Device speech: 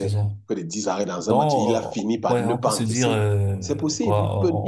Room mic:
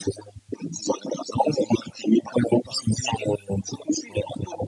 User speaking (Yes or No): No